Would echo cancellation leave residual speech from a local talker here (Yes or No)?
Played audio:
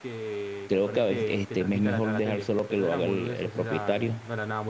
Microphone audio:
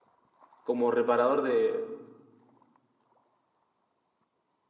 Yes